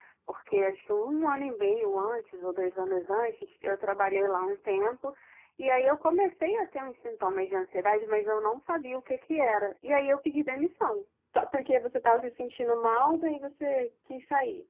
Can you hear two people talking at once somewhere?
No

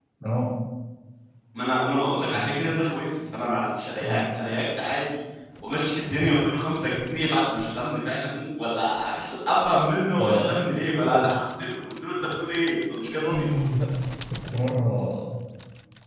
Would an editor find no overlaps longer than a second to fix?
Yes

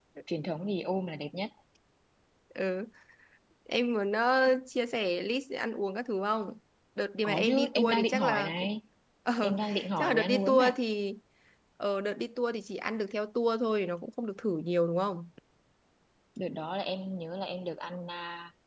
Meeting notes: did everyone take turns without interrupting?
No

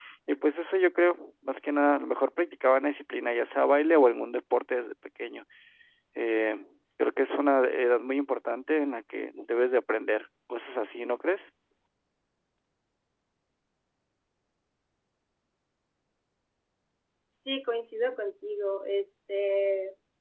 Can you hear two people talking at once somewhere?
No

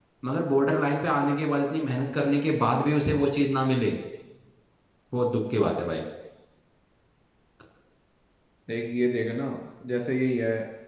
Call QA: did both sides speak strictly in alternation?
Yes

